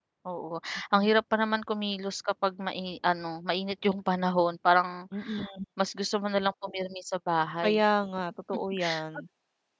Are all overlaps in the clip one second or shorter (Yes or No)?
Yes